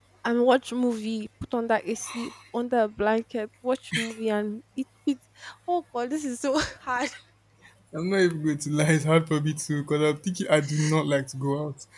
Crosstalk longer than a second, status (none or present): none